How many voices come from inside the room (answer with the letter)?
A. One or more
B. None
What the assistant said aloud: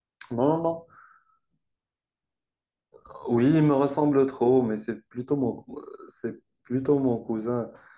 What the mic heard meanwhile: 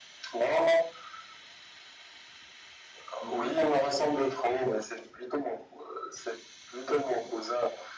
A